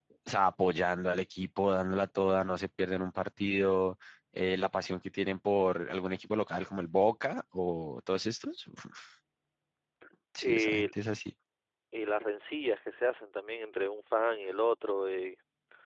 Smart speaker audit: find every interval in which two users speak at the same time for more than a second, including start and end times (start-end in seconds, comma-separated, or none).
none